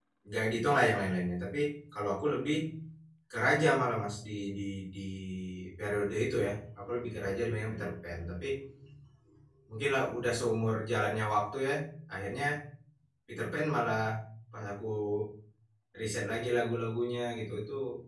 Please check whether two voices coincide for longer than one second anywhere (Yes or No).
No